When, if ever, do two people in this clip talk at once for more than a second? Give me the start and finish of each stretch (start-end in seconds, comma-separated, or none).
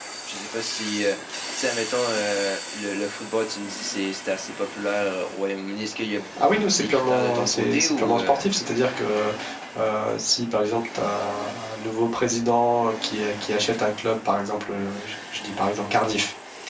6.8-8.4